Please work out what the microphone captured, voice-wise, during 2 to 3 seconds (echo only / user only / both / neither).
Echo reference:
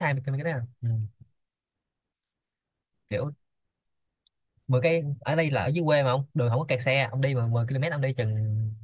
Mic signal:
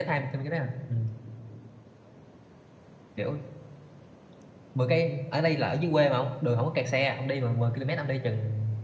neither